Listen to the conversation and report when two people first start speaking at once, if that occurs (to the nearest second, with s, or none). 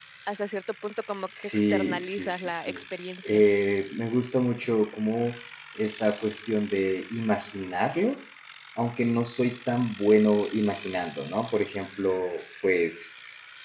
1 s